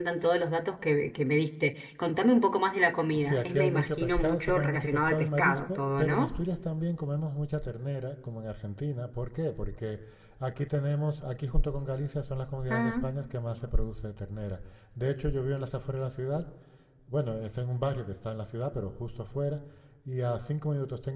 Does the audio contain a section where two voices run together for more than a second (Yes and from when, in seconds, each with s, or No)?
Yes, from 3.1 s